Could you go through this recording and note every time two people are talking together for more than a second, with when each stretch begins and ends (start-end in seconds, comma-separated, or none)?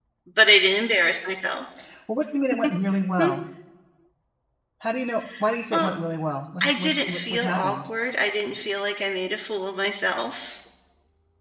6.6-7.9